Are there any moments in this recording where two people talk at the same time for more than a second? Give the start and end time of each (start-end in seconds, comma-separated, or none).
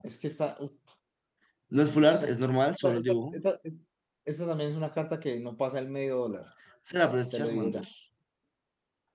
none